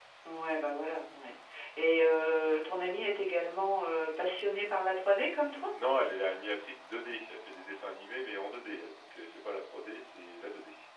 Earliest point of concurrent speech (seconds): none

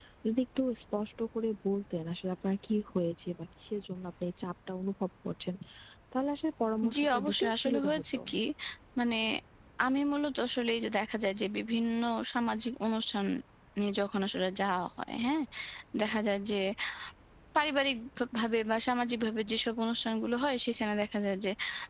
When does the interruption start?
6.9 s

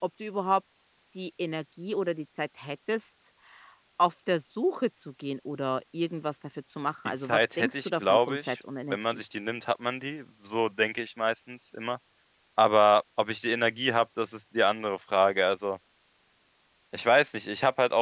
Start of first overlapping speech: 7.2 s

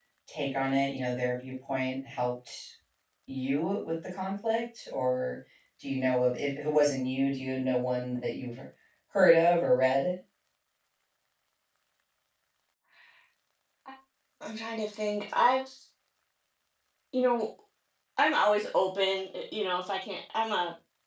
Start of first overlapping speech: none

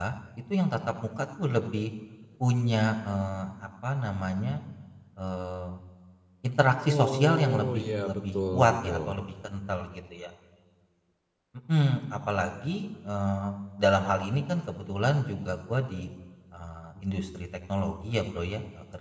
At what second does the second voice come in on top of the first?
6.9 s

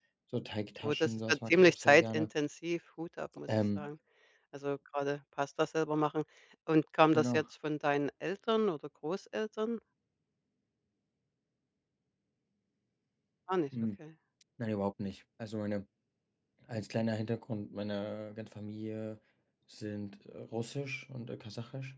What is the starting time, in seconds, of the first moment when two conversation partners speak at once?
0.8 s

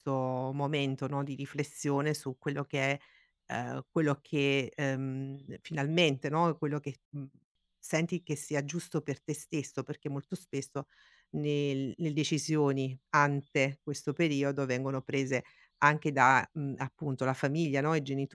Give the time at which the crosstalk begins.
none

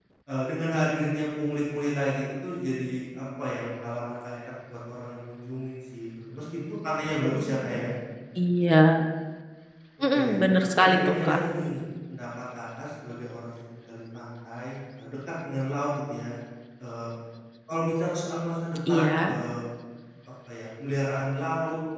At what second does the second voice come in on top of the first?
10.1 s

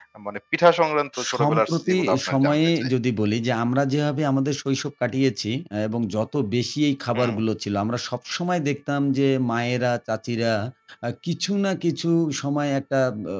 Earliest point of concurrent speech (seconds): 1.1 s

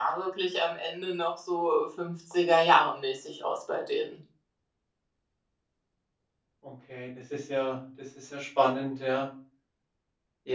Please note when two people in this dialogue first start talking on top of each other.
none

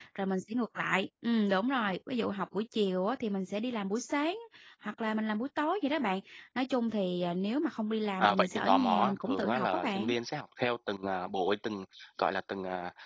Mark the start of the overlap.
8.2 s

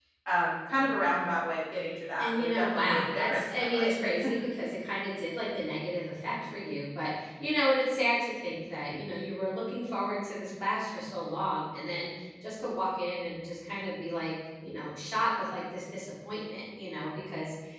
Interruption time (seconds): 2.2 s

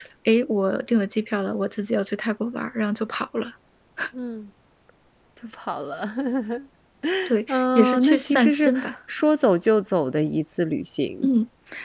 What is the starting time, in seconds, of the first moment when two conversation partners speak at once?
7.5 s

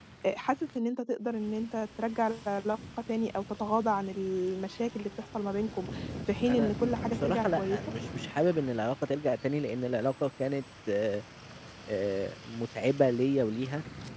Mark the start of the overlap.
6.5 s

